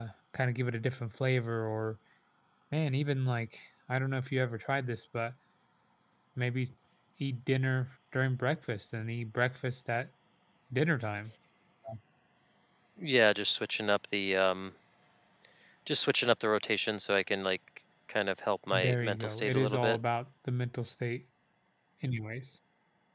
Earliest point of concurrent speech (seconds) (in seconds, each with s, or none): 18.7 s